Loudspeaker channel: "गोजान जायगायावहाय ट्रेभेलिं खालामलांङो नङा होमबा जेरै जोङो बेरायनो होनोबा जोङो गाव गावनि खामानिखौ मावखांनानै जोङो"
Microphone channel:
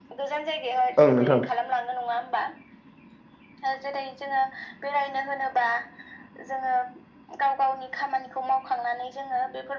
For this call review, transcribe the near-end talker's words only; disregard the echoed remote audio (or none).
ओं नोंथां